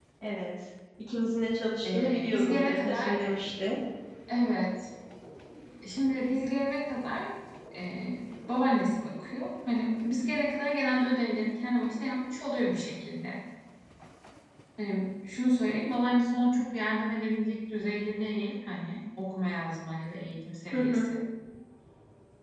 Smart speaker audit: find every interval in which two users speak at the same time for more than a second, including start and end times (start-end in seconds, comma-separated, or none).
1.8-3.1